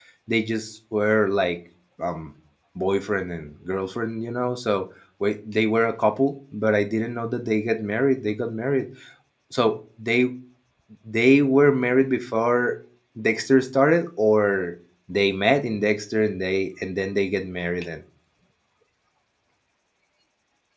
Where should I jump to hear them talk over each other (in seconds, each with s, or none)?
none